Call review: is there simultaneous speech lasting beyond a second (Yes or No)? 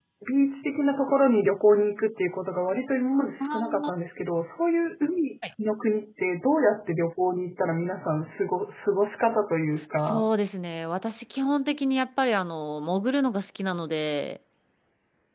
No